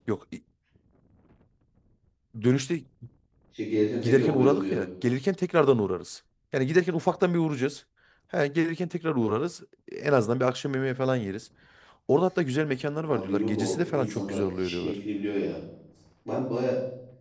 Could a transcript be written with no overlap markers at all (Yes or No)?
No